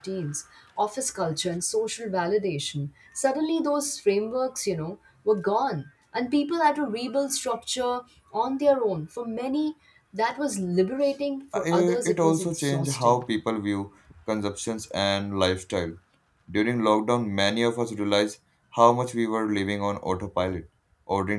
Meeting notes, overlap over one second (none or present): present